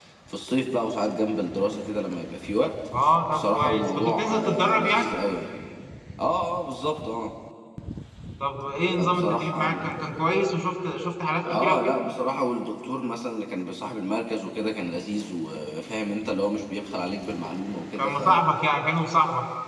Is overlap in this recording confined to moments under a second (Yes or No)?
No